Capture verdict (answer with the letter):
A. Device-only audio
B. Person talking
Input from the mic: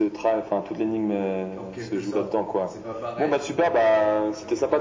B